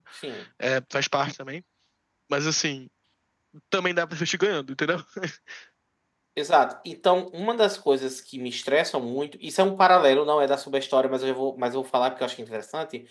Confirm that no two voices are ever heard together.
Yes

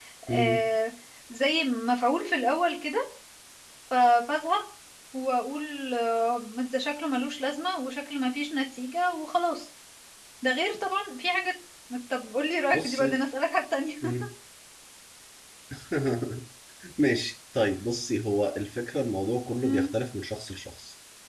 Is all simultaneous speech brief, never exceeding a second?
Yes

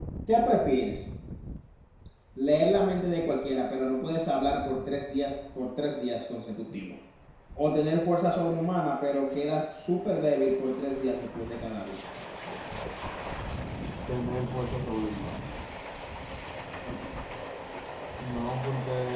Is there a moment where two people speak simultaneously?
No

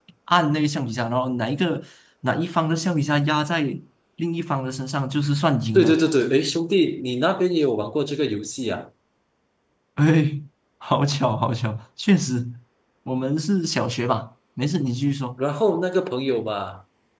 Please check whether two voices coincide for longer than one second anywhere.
No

